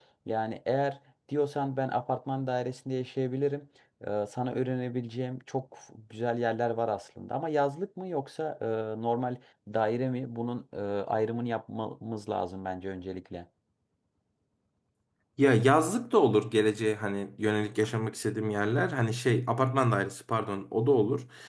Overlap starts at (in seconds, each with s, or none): none